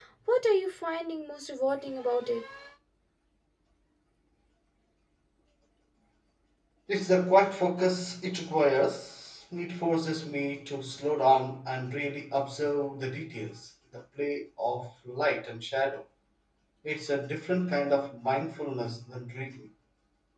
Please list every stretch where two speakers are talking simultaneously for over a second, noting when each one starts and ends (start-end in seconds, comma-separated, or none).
none